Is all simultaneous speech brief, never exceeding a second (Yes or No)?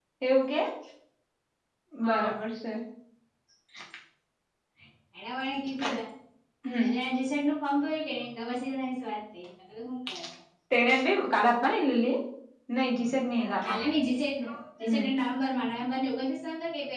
Yes